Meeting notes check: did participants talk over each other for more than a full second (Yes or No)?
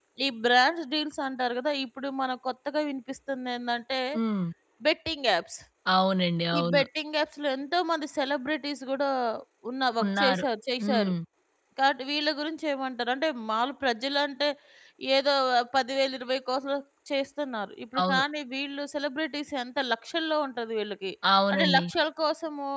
No